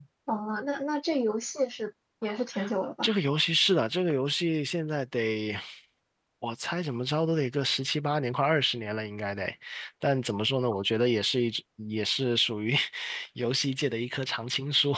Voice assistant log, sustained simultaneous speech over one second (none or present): none